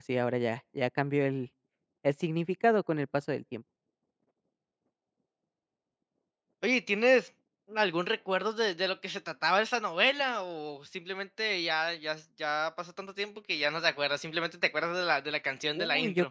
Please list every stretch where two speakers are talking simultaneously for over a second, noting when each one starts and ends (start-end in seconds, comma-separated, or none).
none